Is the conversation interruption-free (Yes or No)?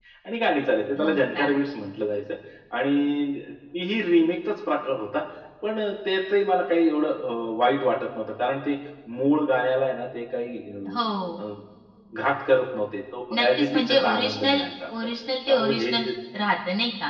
No